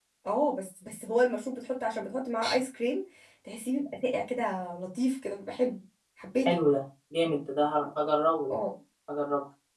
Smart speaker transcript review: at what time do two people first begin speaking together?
none

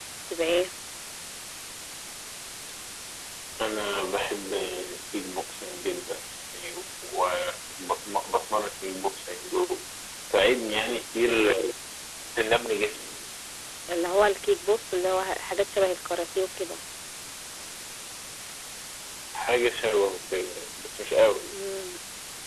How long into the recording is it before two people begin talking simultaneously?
none

